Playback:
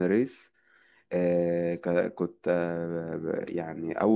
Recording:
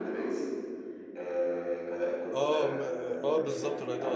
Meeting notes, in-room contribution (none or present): present